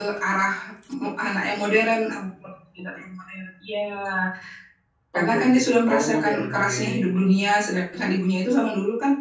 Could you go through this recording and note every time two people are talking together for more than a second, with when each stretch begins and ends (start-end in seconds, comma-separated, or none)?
5.1-6.8